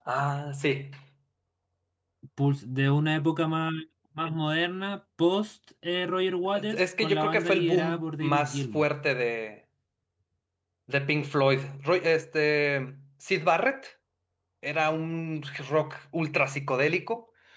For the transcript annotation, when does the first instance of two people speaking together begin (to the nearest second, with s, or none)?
7 s